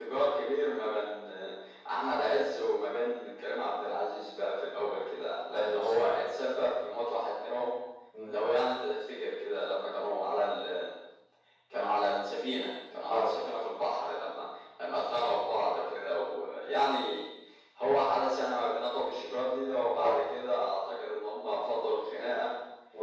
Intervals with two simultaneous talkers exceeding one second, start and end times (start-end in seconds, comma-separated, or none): none